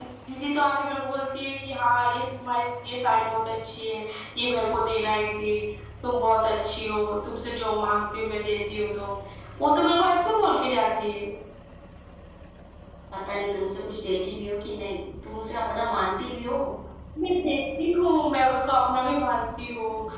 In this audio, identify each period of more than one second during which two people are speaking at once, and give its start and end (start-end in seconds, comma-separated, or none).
none